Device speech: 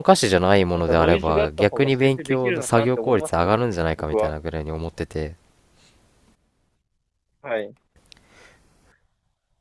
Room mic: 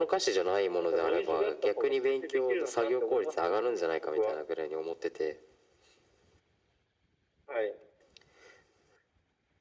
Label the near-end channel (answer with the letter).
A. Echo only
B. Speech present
A